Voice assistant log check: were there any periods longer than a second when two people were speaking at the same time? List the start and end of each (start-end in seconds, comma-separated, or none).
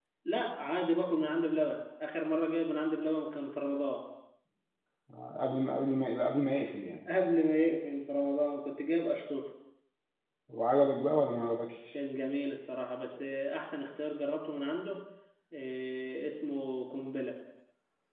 none